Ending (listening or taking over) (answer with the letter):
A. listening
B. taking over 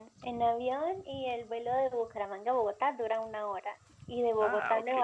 A